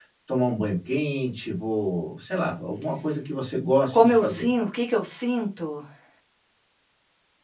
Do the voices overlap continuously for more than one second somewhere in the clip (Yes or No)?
No